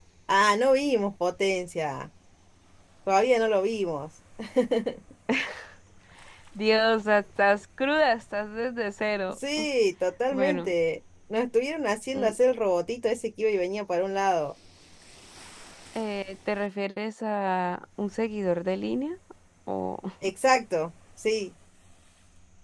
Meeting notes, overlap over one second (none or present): none